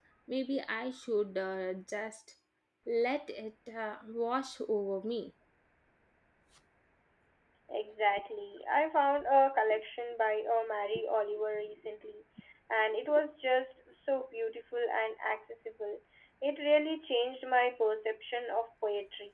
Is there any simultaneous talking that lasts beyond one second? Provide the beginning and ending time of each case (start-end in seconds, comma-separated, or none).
none